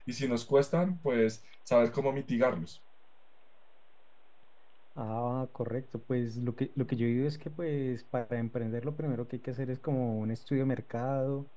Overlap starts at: none

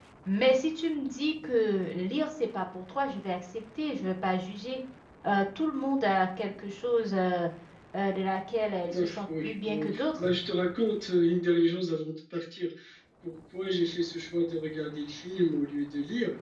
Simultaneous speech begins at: 8.8 s

